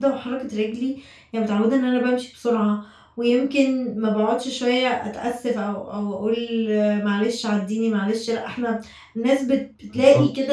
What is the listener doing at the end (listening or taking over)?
listening